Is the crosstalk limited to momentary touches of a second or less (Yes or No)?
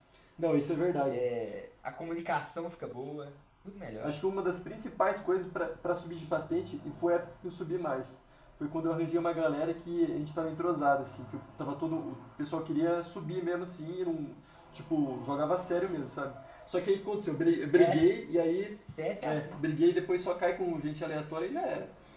Yes